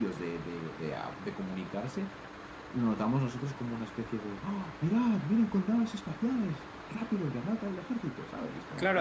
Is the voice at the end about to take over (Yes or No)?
Yes